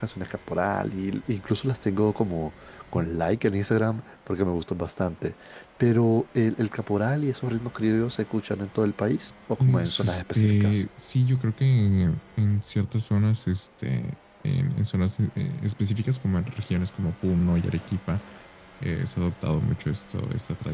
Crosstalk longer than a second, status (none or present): present